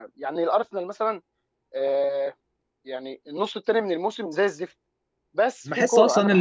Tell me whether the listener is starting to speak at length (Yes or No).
Yes